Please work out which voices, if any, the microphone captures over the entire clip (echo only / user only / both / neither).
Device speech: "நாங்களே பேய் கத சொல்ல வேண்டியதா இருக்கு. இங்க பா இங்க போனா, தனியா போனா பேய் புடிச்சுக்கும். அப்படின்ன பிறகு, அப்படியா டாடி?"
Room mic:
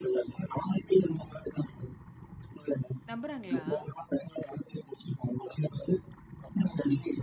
both